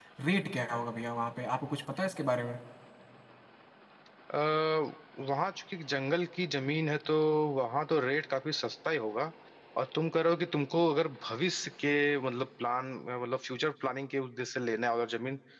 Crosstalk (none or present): none